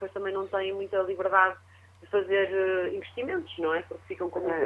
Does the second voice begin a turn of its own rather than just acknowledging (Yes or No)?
Yes